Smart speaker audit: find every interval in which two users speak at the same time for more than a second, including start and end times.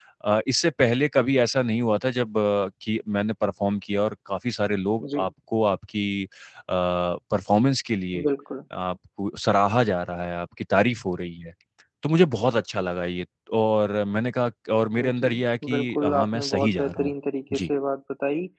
15.7-17.1

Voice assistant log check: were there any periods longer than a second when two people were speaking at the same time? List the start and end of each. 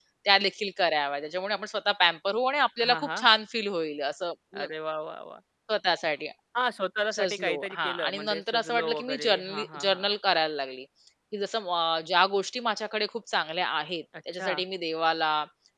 7.2-10.1

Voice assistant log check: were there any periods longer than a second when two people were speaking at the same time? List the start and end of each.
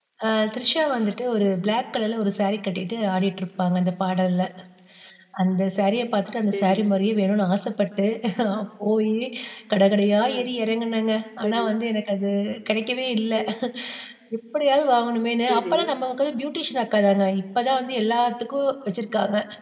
none

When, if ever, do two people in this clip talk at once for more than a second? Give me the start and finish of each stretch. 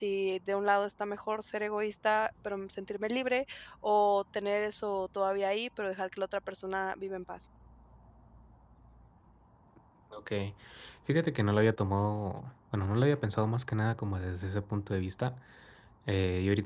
none

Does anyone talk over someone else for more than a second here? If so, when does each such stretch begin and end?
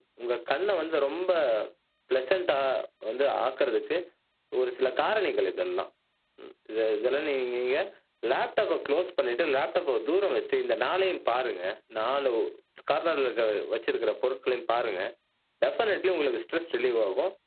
none

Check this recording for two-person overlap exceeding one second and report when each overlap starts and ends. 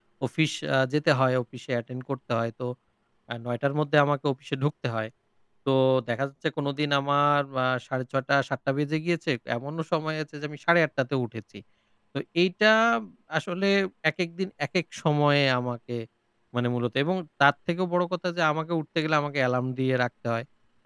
none

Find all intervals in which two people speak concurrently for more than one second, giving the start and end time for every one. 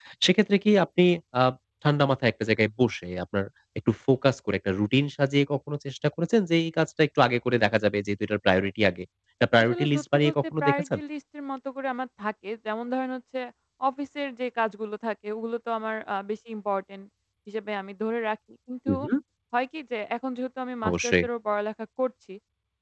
9.6-11.0

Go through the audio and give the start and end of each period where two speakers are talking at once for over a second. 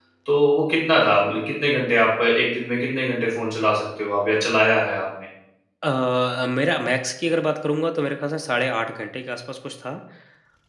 none

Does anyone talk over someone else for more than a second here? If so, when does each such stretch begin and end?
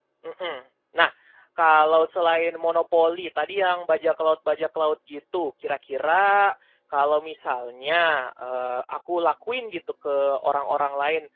none

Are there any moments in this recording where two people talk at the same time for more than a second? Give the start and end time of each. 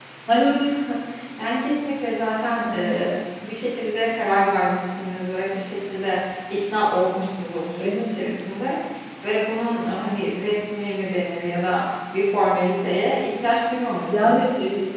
none

